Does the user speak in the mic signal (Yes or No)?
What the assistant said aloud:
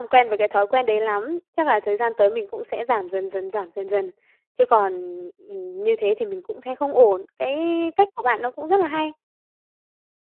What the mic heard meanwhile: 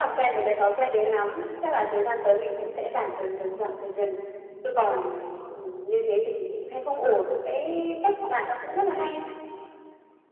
No